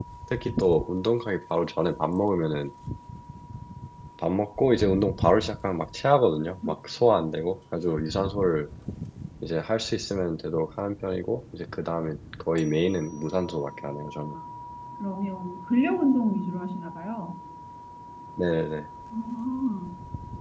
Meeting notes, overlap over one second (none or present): none